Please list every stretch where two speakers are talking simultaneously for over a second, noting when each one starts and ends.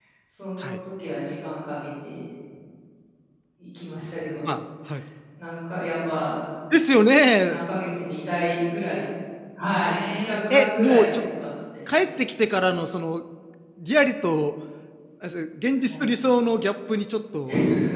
9.9-11.3

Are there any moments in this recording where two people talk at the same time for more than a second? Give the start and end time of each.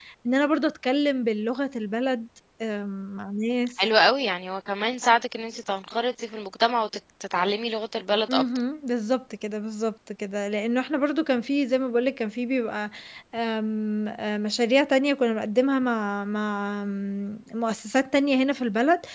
none

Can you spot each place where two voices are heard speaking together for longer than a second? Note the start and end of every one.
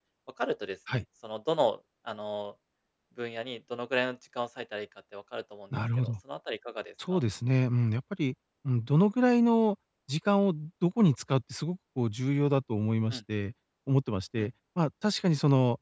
none

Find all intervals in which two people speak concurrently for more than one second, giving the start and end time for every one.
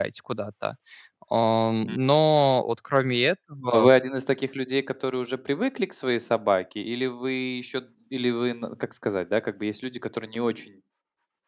none

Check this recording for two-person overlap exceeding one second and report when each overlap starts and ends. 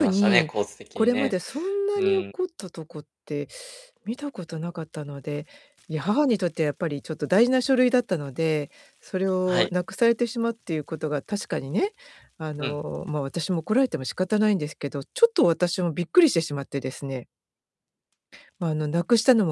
none

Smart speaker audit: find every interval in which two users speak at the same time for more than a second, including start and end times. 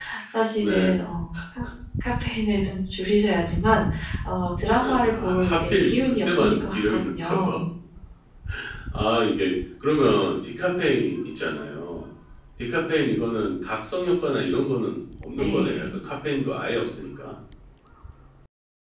4.8-7.6

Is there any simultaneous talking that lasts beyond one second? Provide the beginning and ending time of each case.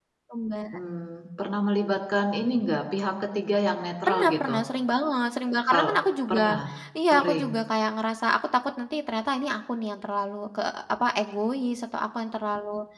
none

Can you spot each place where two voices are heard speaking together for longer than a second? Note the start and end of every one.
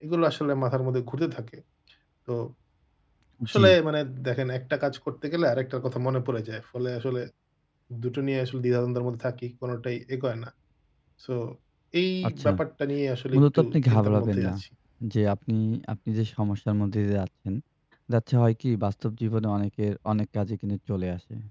13.3-14.5

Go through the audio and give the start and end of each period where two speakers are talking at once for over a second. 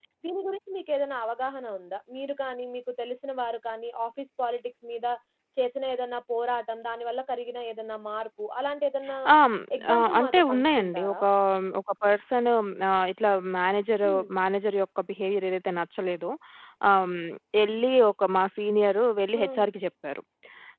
9.9-11.2

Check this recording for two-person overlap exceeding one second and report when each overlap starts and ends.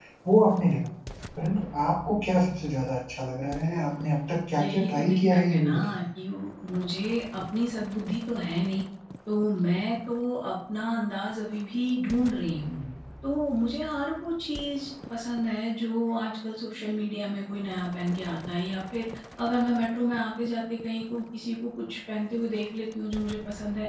4.6-6.0

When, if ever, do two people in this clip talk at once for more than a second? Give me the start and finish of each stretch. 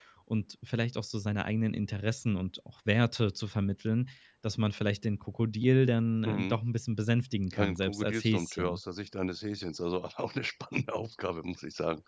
7.6-8.8

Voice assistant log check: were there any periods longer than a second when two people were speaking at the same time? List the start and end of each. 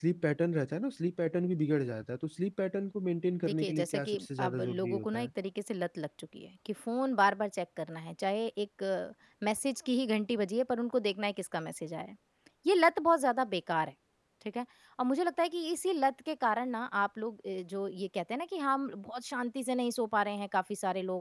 3.4-5.3

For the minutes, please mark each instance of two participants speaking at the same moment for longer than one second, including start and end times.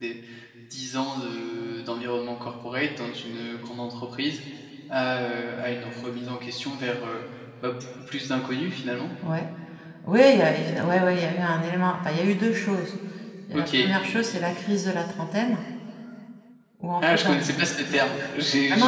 none

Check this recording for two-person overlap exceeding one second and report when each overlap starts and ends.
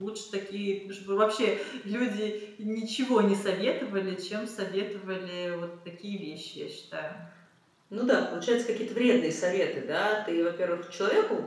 none

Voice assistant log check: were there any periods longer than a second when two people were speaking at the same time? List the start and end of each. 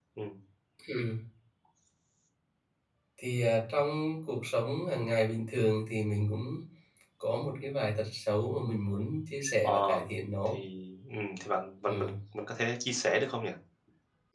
none

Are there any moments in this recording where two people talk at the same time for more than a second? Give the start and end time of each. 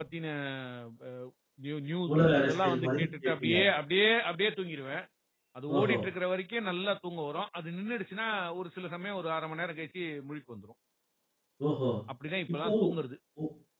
2.1-3.5

